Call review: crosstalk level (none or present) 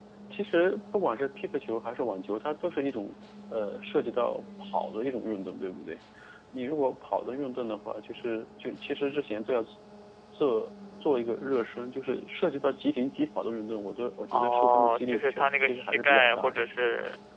present